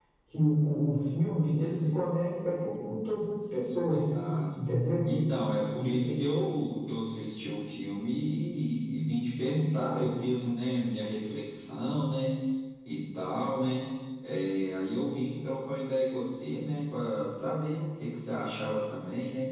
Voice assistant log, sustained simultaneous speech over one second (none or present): none